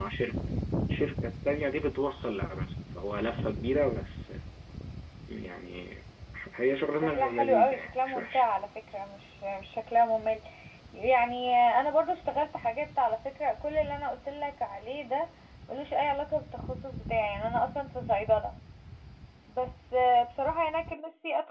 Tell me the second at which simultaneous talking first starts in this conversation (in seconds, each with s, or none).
6.9 s